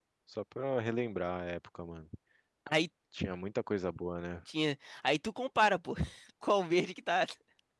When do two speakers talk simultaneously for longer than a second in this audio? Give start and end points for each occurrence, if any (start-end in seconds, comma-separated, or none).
none